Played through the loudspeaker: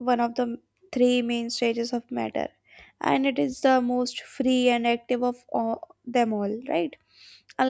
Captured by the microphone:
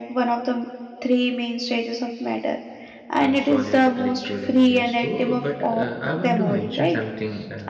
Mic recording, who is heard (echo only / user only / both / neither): both